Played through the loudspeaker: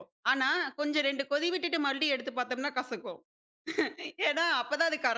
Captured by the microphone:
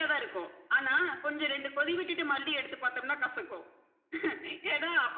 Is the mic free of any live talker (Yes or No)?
Yes